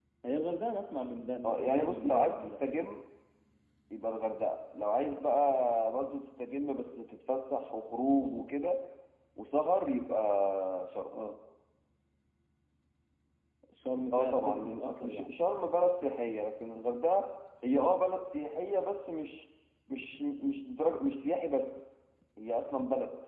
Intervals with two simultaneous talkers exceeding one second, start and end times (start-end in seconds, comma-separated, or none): 1.4-2.7, 14.1-15.3